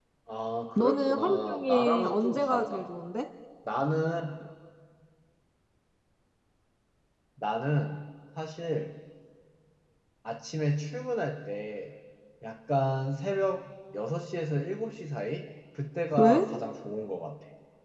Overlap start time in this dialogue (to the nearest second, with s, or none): 1 s